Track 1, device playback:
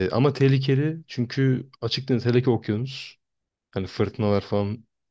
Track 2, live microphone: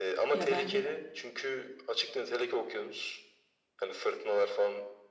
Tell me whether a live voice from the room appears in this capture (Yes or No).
Yes